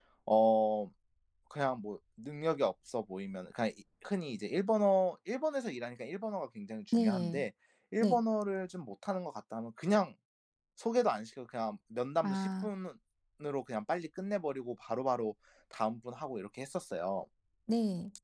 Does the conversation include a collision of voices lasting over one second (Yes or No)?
No